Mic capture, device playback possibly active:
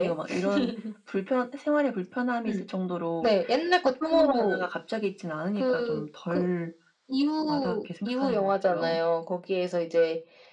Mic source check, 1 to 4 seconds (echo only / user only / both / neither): echo only